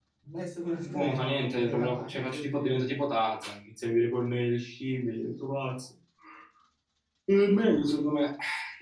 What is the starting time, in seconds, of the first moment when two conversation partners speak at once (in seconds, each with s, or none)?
0.8 s